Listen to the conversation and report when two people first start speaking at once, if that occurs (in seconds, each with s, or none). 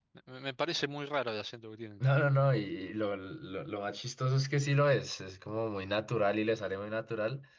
none